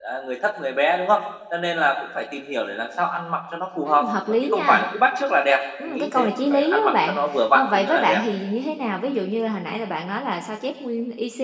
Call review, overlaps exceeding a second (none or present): present